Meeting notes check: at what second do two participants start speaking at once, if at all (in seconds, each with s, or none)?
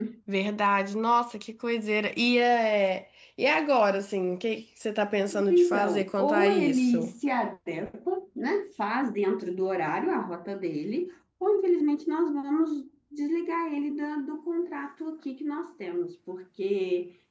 5.3 s